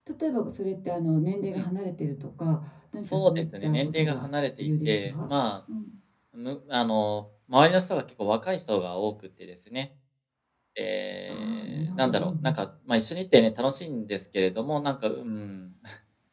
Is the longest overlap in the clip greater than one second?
Yes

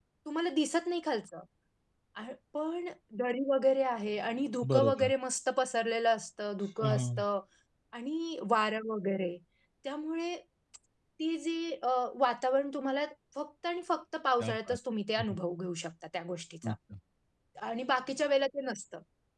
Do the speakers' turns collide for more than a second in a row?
No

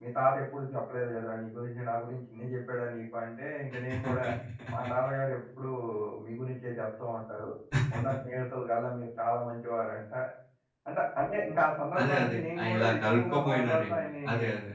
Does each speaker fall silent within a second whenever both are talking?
No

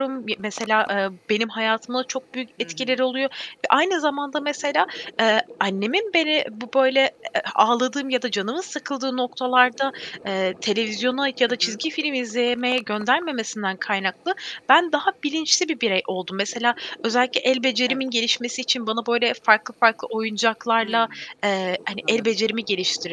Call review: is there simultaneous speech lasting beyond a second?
No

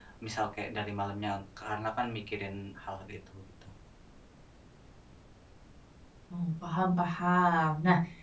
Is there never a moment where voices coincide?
Yes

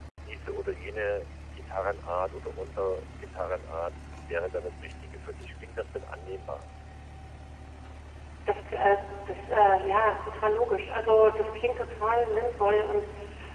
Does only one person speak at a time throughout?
Yes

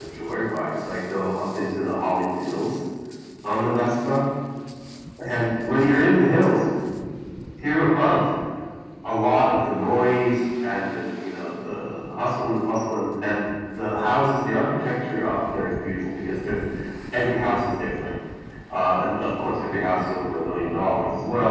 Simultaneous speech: No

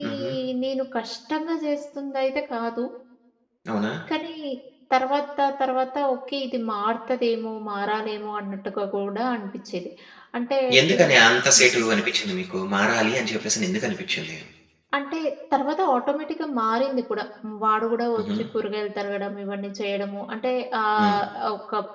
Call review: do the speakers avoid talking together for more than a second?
Yes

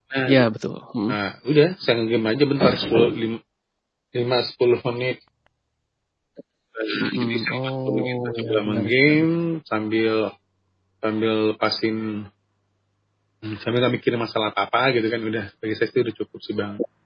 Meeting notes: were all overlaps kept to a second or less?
No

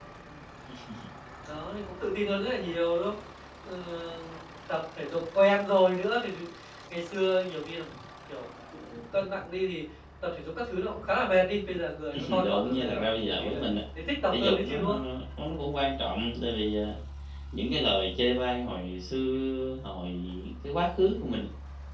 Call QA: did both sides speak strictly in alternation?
No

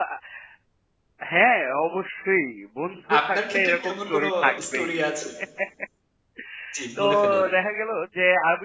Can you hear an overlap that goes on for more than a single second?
Yes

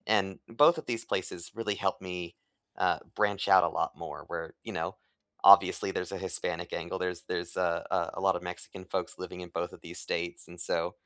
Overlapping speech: No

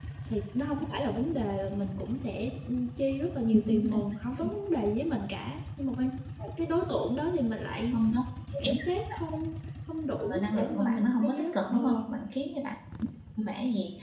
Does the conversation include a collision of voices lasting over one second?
Yes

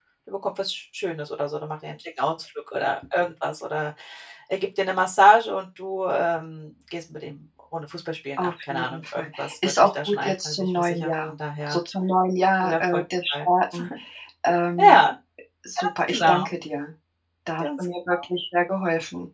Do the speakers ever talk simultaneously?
Yes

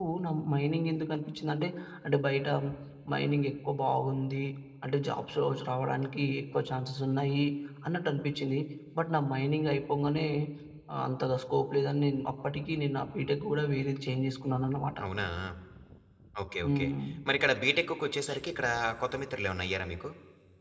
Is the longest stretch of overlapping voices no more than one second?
Yes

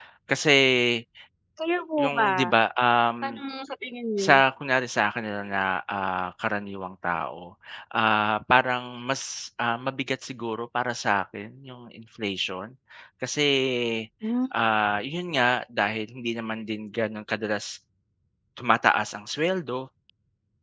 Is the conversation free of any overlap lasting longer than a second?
Yes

